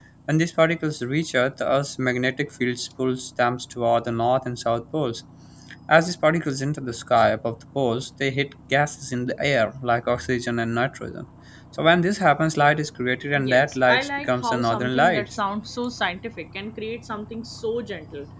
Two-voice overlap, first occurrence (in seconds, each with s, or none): 13.4 s